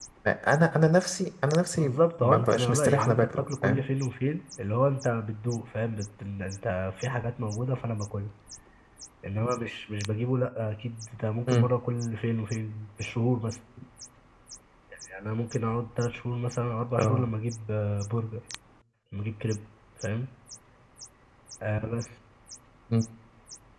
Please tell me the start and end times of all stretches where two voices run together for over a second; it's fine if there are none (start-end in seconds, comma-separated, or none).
1.8-3.9